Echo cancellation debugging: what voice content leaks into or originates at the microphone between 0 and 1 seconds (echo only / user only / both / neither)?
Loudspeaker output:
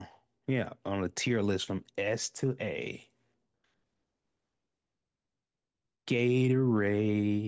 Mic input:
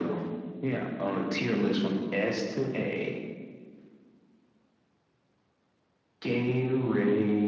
echo only